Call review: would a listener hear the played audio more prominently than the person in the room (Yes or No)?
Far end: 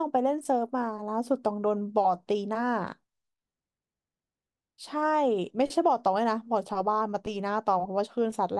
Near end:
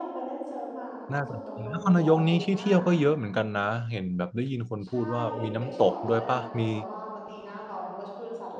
No